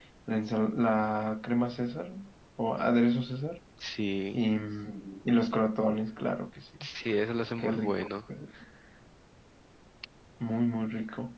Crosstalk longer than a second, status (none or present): none